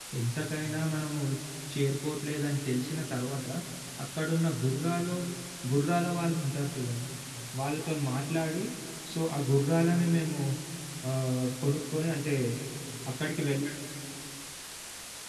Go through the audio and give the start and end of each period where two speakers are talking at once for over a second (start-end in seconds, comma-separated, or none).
none